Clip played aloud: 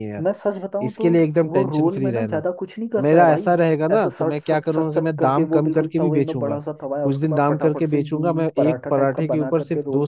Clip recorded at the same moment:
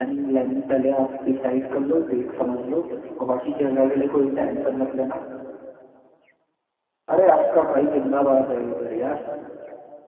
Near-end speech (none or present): present